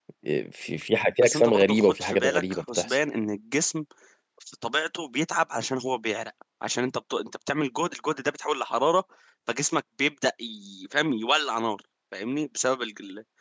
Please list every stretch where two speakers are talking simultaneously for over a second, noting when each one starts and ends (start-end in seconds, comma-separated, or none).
1.2-3.0